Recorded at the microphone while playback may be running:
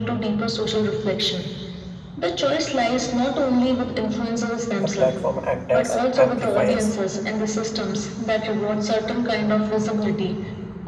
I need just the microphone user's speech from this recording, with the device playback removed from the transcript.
The platform acts as amplifiers

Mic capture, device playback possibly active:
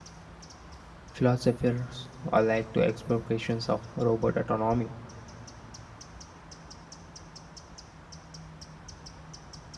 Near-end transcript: philosophers alike to explorations of robot autonomy,

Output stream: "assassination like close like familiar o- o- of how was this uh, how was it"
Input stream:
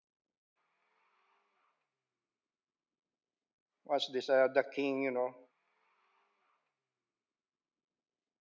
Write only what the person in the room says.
was this. Uh, the king, you know,

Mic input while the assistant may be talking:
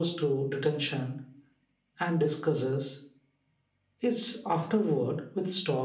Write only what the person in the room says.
none

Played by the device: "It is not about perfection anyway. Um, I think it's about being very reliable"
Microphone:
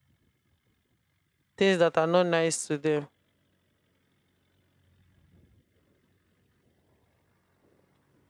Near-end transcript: things that are not nice to them

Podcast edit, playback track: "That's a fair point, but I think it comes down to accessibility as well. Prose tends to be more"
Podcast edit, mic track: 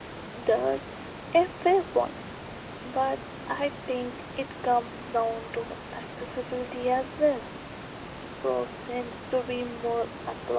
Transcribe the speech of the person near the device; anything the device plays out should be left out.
none

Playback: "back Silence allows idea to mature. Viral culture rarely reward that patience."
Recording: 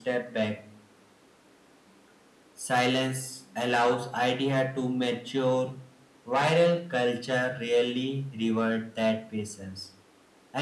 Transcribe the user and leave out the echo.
none

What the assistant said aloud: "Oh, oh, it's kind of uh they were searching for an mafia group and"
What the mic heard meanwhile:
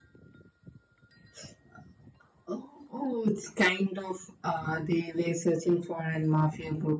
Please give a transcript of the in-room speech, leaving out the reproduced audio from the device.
none

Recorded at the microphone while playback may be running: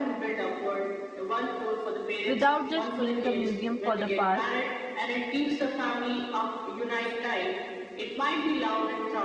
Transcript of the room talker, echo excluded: without just being a museum for the past

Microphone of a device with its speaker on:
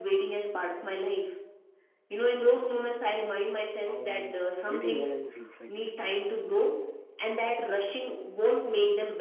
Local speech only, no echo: um, waiting no longer feels like wasted time

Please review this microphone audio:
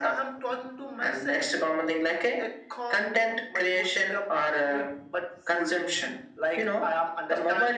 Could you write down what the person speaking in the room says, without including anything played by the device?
none

